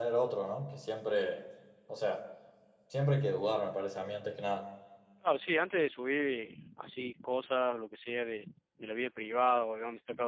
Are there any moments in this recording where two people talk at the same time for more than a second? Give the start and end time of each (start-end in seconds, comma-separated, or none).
none